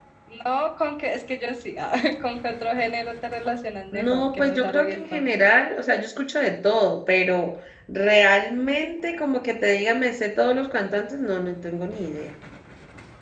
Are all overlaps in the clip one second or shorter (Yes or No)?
No